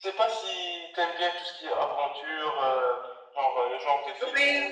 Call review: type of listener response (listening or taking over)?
listening